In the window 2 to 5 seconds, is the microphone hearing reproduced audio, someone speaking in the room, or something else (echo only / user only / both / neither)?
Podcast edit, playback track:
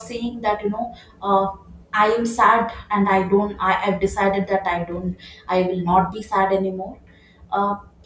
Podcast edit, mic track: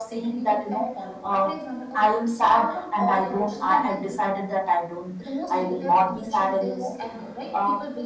both